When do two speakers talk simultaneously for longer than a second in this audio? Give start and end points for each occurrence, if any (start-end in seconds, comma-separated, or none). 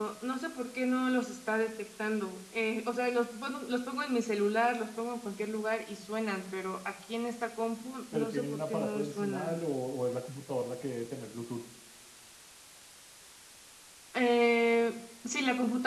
8.1-9.6